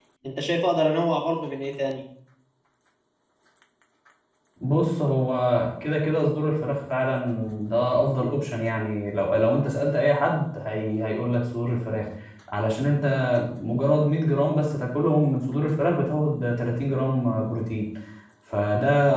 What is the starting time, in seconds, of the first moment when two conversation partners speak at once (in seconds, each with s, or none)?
none